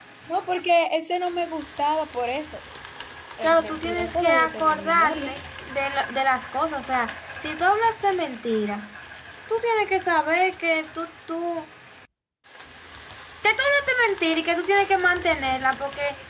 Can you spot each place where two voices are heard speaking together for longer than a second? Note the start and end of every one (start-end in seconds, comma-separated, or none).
3.4-5.3